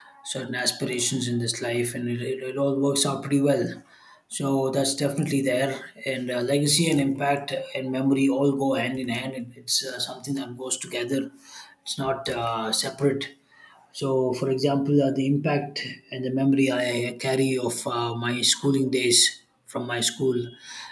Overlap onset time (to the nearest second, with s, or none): none